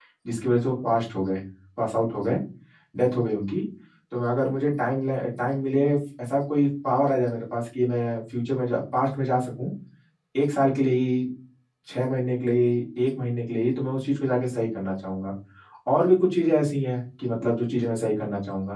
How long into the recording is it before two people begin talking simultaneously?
none

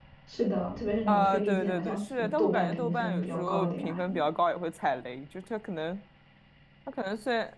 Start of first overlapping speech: 1.1 s

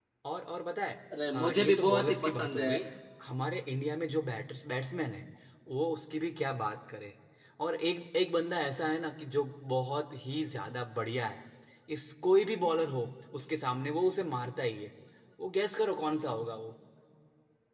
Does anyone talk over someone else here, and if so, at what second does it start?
1.1 s

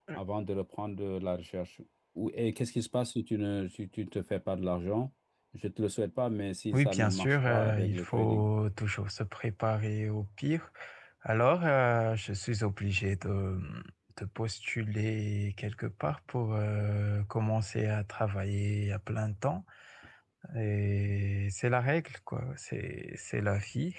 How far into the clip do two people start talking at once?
6.7 s

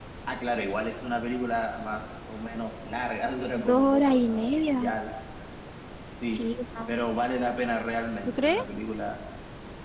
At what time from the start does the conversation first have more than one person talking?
3.5 s

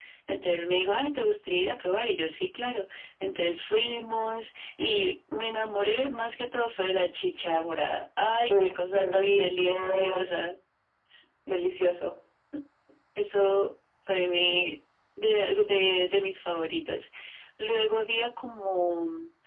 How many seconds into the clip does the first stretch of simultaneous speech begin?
8.5 s

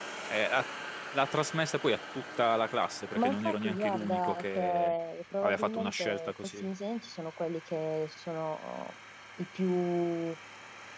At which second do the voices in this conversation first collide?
3.1 s

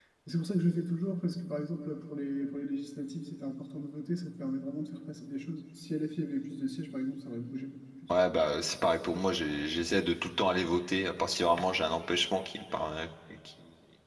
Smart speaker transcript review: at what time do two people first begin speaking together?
none

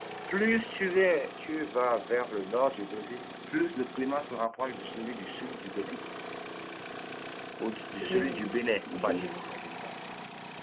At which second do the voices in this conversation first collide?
8.0 s

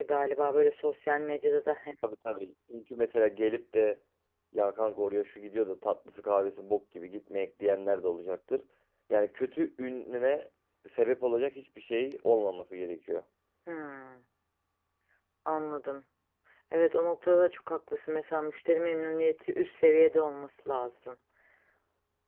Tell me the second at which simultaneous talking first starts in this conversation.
none

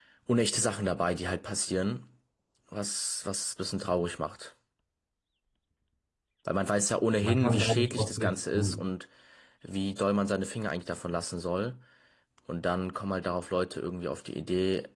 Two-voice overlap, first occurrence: 7.2 s

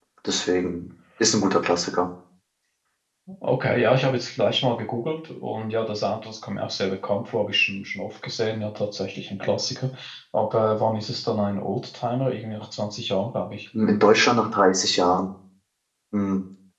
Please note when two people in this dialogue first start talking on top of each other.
none

